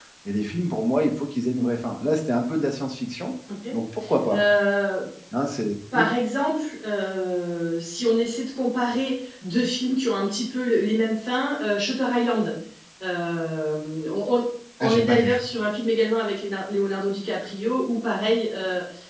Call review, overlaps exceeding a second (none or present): none